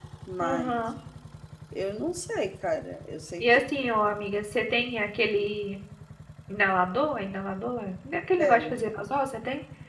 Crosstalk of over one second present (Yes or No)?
No